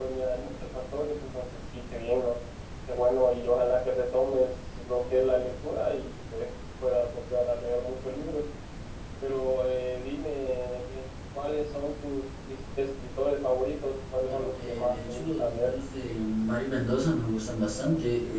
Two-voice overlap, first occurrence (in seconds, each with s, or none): 14.2 s